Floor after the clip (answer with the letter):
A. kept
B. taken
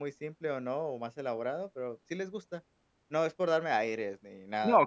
B